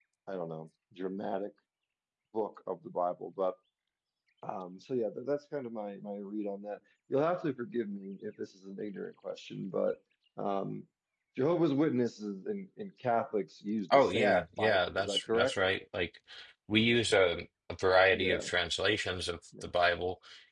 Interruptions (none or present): present